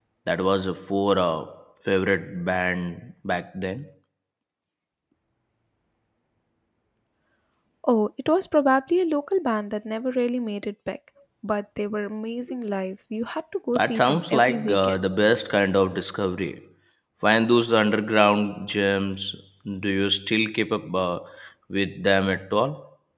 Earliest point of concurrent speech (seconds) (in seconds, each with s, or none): 13.8 s